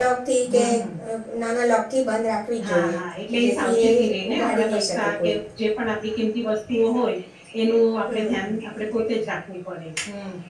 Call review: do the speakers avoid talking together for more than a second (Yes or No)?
No